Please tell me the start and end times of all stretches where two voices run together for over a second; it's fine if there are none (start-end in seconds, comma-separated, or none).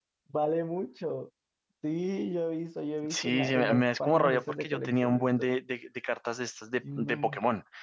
3.1-5.5